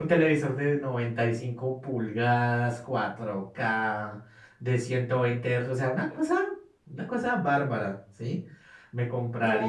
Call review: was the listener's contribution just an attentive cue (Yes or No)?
No